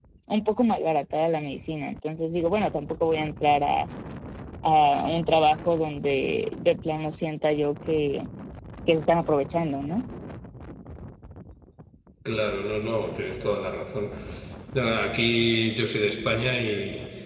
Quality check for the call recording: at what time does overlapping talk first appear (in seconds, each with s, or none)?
none